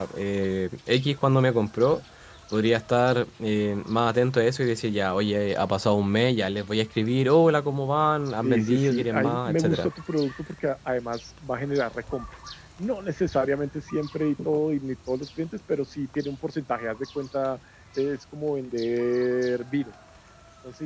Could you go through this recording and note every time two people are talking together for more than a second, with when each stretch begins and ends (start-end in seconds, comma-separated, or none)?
8.4-9.9